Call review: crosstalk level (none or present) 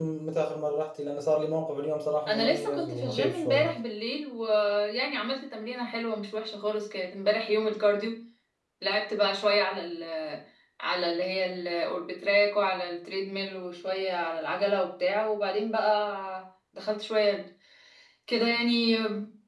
present